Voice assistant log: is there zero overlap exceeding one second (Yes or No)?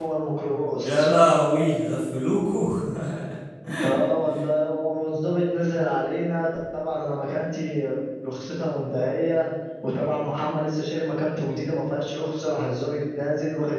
Yes